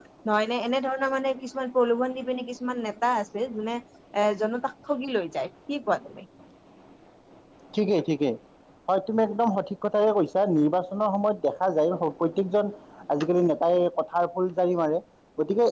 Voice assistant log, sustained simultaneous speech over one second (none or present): none